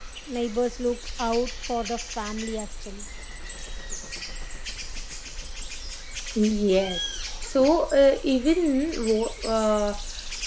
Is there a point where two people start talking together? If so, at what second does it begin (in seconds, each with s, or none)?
none